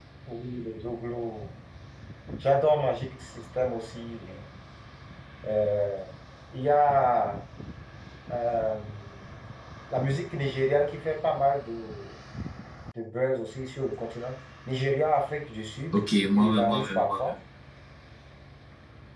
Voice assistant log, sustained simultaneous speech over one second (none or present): present